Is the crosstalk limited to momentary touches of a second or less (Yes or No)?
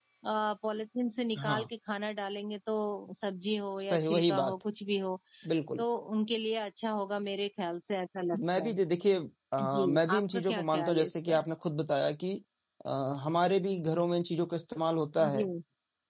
No